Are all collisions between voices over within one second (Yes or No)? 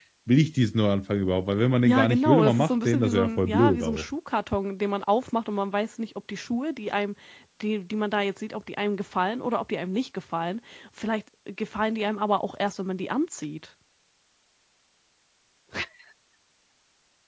No